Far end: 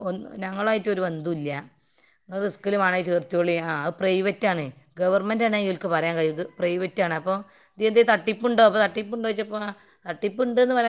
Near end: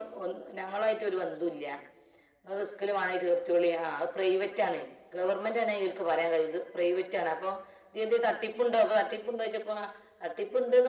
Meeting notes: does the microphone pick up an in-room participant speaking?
No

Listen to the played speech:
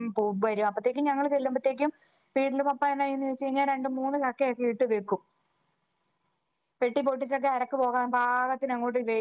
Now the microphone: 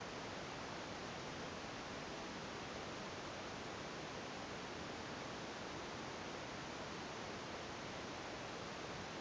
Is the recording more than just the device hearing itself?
No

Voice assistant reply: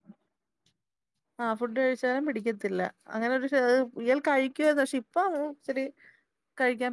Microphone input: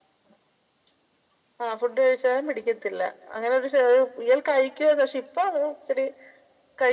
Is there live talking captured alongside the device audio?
No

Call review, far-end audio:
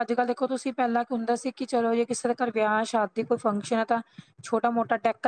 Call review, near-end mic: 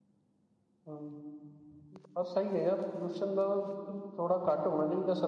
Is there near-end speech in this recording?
Yes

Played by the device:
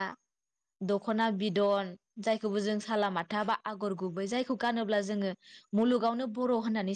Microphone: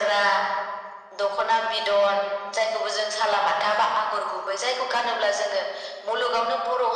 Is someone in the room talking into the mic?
No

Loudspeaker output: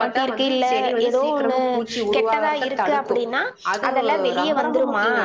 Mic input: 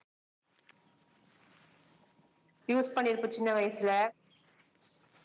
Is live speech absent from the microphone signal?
No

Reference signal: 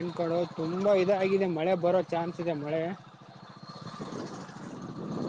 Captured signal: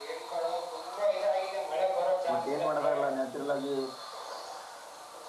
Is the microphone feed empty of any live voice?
No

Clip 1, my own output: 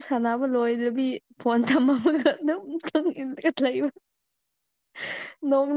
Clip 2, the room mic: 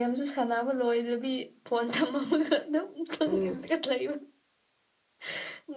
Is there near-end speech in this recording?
Yes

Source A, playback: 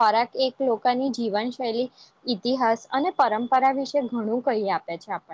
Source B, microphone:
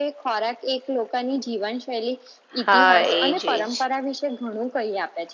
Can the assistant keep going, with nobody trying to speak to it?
No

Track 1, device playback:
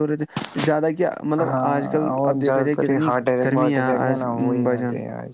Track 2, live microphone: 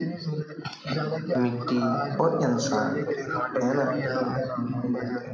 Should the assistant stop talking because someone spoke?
Yes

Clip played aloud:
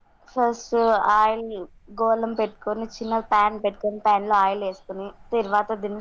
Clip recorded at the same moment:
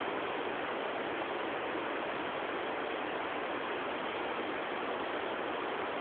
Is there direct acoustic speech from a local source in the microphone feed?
No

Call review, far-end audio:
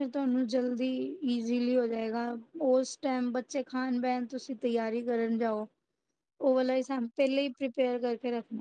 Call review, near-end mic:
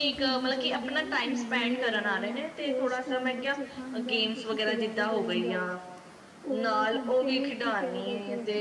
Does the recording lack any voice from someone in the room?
No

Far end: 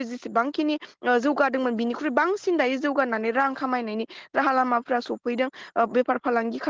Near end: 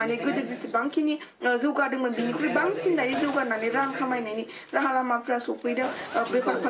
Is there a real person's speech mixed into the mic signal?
Yes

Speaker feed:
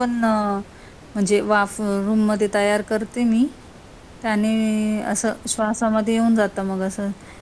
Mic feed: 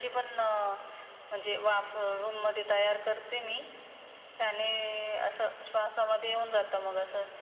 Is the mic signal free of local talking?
Yes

